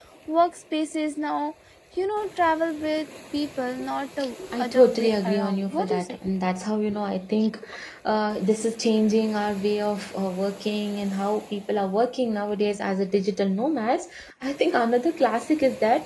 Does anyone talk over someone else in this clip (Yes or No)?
Yes